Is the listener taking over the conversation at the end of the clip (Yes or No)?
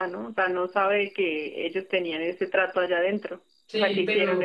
Yes